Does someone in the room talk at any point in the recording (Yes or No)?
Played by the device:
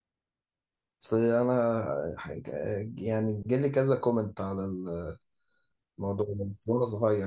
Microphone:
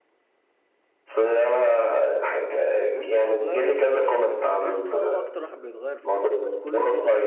Yes